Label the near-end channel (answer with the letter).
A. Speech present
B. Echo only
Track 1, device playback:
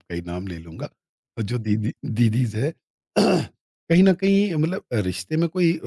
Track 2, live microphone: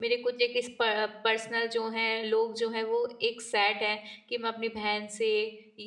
A